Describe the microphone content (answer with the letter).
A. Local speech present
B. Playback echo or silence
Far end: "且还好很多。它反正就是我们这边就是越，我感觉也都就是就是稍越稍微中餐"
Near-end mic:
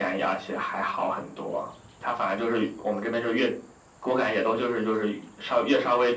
B